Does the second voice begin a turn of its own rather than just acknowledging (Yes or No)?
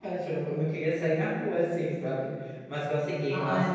No